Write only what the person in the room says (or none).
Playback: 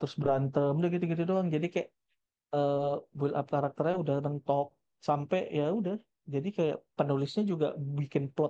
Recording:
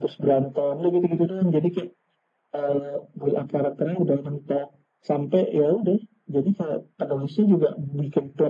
none